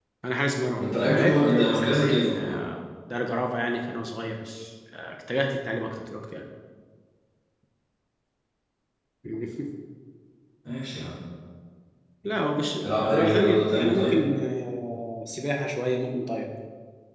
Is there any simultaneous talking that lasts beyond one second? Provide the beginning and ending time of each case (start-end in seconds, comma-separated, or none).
0.8-2.6, 12.8-14.2